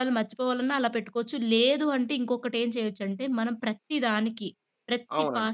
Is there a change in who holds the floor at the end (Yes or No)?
No